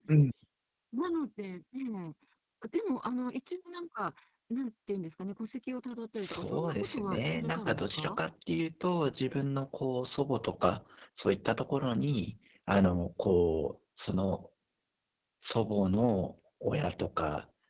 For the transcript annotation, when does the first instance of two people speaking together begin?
6 s

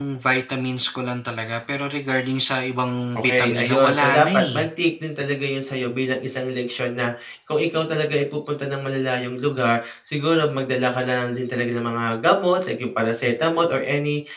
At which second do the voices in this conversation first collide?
3 s

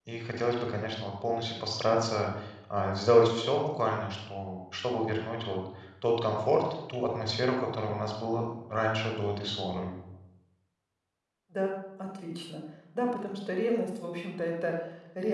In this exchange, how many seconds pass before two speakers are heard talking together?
none

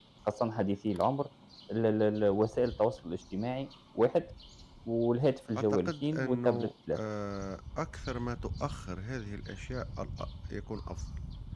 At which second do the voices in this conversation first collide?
6 s

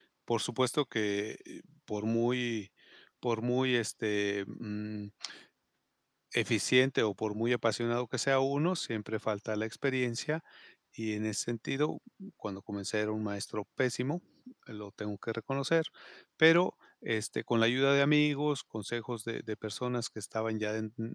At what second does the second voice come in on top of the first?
none

